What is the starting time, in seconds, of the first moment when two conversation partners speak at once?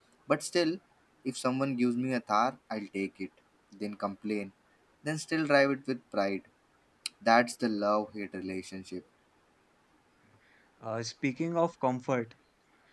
none

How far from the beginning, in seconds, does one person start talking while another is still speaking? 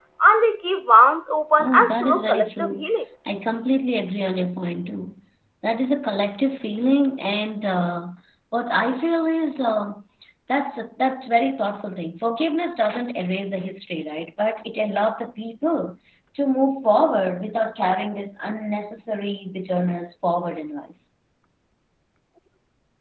1.6 s

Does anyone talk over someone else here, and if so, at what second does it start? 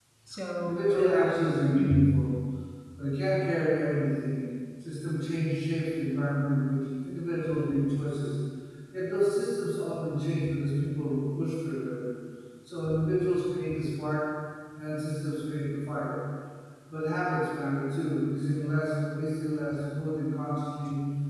0.6 s

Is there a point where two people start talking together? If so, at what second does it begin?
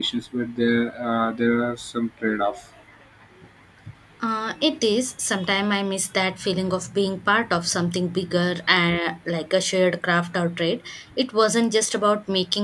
none

